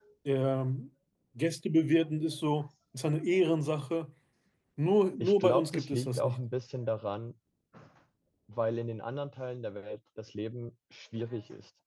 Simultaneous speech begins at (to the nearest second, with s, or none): 5 s